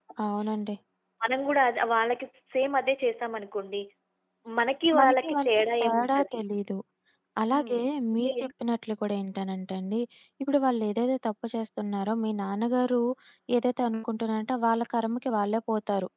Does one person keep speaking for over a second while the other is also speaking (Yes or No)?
Yes